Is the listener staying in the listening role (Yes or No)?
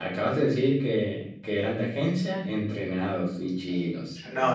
No